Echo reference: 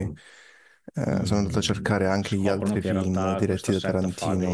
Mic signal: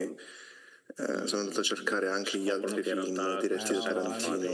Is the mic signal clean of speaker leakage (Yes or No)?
No